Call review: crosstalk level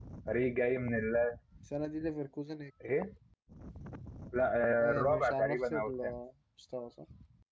present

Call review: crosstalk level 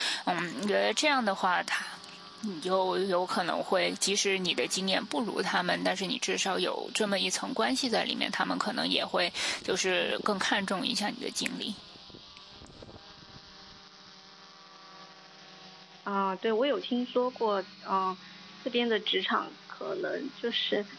none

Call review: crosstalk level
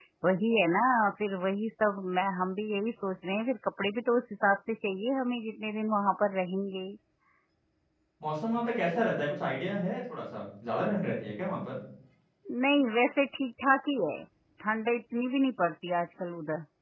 none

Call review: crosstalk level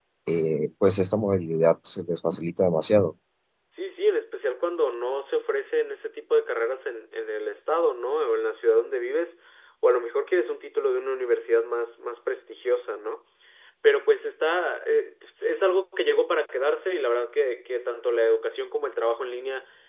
none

